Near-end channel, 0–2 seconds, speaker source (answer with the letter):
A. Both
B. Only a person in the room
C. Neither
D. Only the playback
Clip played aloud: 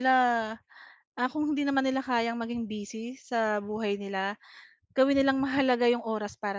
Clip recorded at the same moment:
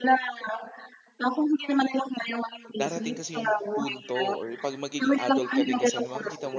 D